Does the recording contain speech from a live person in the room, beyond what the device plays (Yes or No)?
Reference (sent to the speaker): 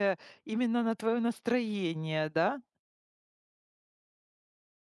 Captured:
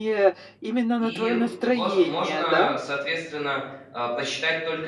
Yes